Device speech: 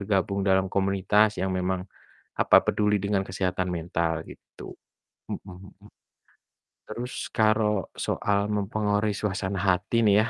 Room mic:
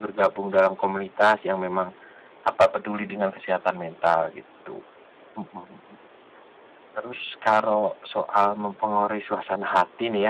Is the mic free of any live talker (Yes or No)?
Yes